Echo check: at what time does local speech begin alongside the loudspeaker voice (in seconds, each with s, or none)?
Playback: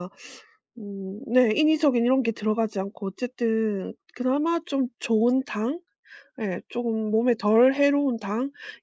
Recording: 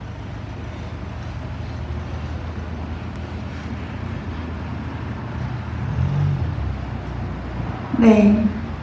7.9 s